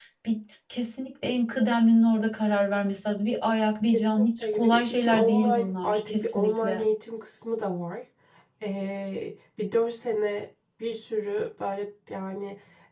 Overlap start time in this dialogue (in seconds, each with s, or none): 3.9 s